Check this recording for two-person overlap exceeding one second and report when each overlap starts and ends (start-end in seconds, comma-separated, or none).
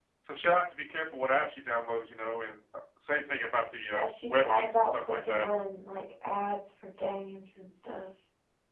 3.9-5.5